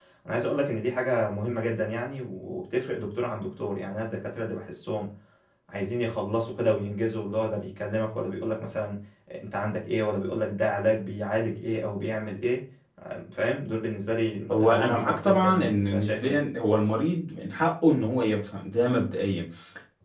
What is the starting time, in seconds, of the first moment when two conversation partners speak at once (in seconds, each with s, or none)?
14.5 s